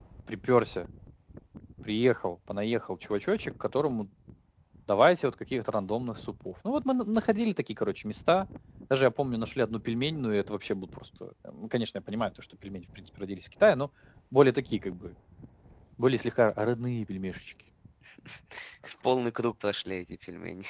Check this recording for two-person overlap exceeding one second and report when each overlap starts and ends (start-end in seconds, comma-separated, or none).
none